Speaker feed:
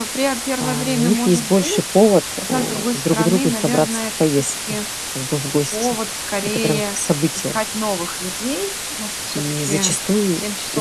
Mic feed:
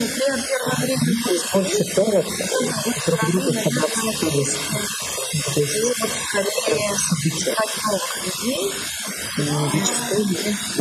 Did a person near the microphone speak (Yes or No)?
Yes